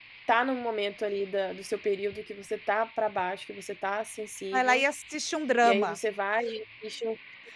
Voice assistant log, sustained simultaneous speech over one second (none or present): none